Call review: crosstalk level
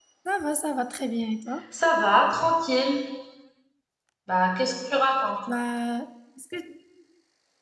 none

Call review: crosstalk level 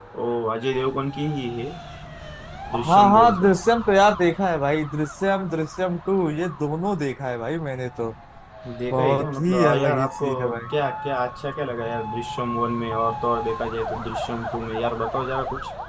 present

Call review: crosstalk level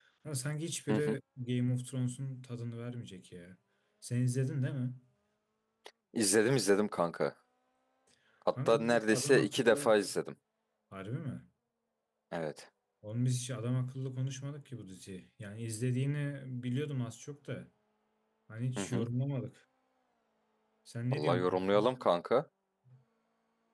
present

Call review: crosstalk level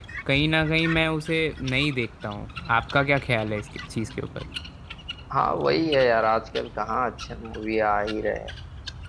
none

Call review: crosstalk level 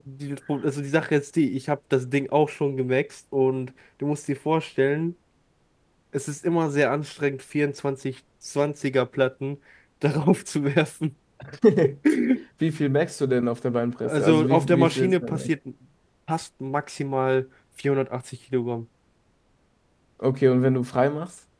present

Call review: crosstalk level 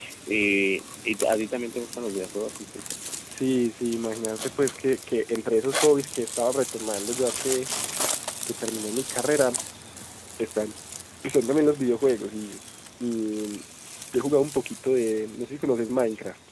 none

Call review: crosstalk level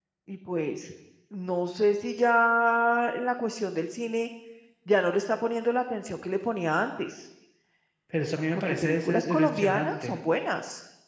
present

